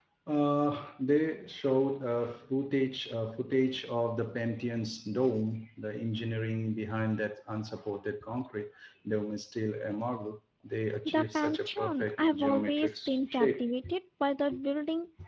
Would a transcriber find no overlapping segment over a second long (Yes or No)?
No